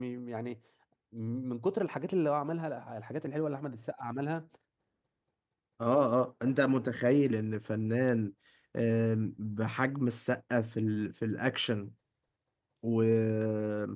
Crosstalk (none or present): none